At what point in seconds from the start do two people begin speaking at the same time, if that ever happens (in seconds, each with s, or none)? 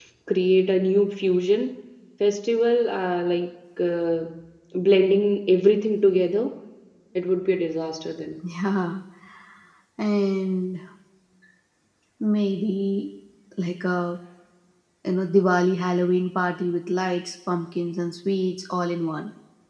none